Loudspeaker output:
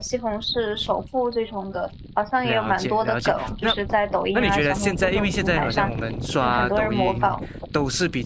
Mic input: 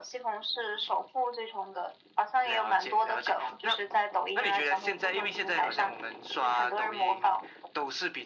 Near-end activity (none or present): none